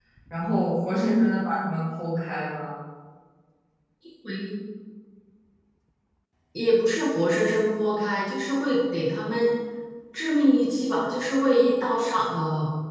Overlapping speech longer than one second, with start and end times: none

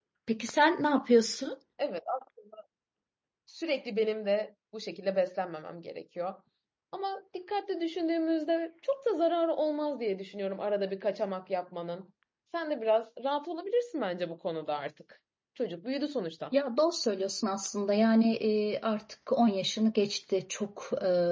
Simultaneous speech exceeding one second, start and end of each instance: none

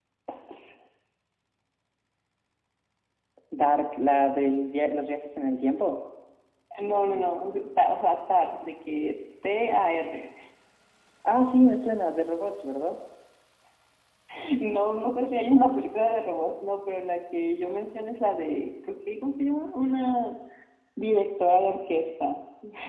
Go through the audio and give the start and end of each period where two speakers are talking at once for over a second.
none

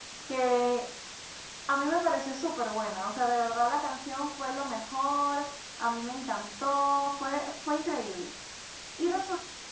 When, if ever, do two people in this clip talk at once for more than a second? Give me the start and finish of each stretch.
none

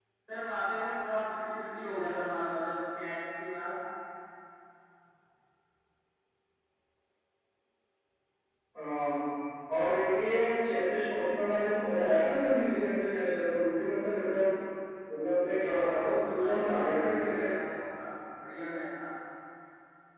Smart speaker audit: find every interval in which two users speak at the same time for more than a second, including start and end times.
15.6-17.4

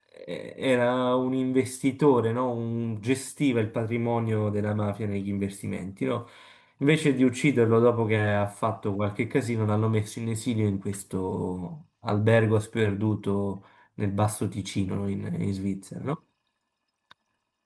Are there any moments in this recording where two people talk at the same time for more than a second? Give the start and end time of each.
none

